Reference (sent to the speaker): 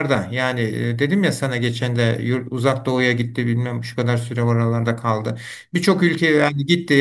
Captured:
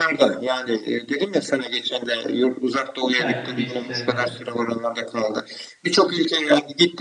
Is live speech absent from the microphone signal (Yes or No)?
No